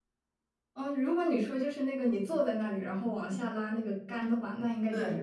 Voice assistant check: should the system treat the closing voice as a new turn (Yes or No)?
No